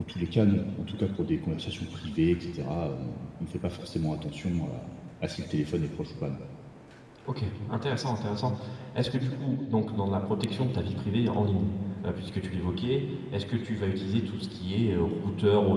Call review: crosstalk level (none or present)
none